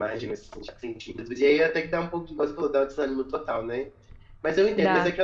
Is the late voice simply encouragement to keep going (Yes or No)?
Yes